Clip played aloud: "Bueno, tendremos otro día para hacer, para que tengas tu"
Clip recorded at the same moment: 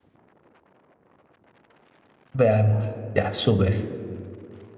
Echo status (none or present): none